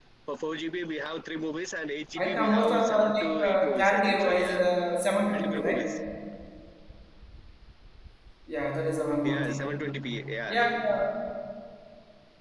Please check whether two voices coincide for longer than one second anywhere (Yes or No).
Yes